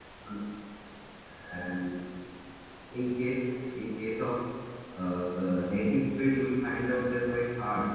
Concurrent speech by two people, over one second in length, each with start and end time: none

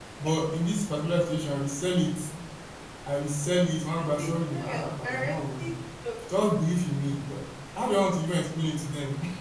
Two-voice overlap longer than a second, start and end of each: 4.0-5.7

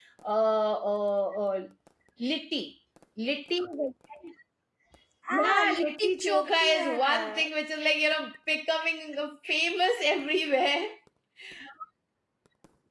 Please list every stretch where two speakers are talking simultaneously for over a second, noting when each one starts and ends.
5.3-7.4

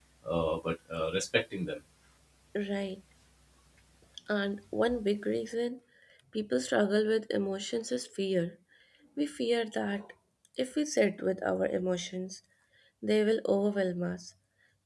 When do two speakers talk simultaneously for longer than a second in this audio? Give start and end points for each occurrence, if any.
none

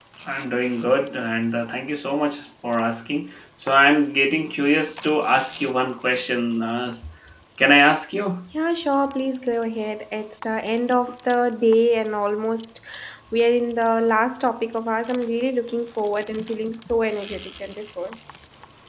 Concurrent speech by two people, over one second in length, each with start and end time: none

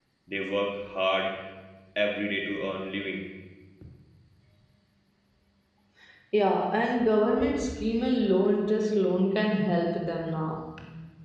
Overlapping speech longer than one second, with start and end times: none

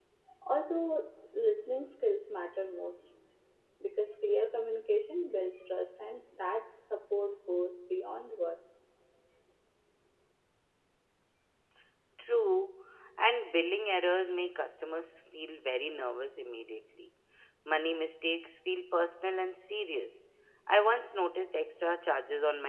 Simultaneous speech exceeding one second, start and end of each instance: none

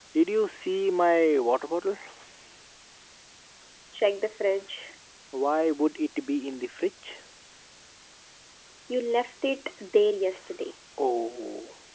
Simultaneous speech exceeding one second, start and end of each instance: none

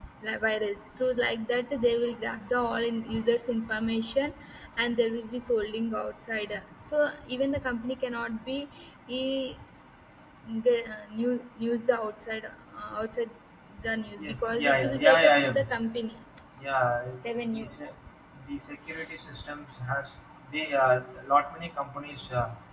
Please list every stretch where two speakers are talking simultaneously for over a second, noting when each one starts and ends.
14.2-15.7

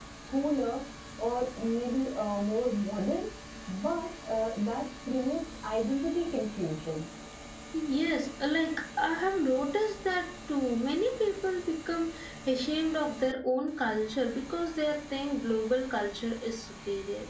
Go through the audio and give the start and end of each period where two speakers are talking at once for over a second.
none

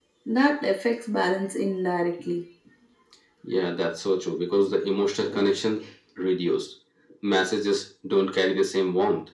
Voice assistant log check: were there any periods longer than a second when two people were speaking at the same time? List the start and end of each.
none

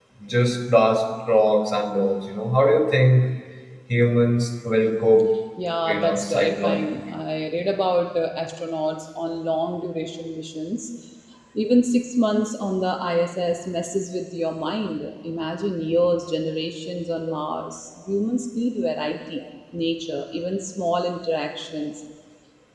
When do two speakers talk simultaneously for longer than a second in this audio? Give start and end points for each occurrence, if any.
5.9-7.2

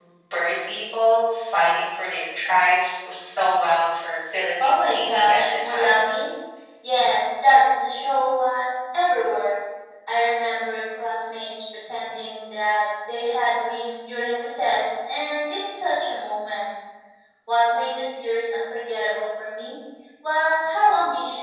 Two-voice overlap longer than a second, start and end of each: 4.6-6.0

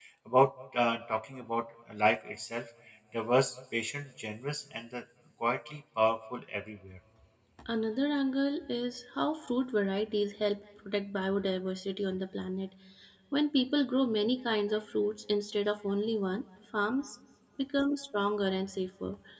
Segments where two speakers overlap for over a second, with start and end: none

